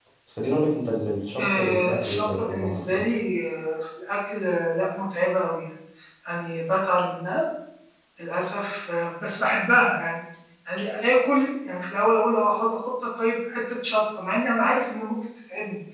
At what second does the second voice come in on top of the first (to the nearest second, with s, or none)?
1 s